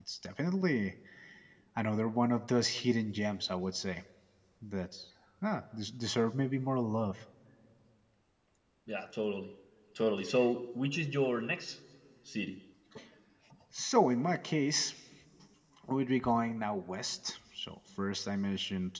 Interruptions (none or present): none